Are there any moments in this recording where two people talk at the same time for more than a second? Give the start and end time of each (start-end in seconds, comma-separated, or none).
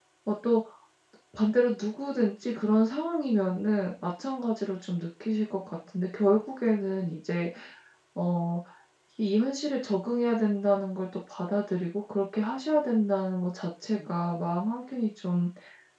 none